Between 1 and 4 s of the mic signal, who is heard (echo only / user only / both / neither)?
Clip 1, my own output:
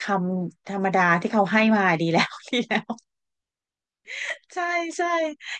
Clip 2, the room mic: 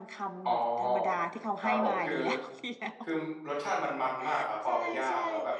both